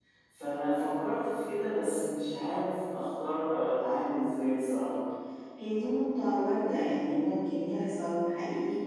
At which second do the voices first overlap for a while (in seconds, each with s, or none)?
none